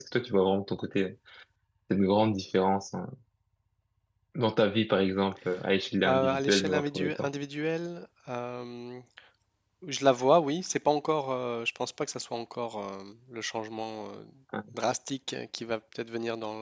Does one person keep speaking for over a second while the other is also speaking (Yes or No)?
Yes